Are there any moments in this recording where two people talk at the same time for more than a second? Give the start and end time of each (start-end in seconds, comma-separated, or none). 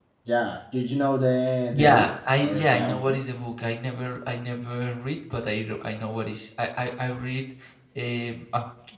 1.7-3.2